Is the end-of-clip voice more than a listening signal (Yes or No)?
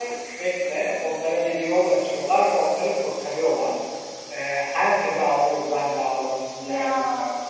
No